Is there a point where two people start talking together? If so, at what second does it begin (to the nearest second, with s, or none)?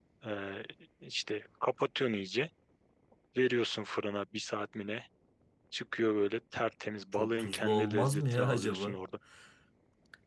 7 s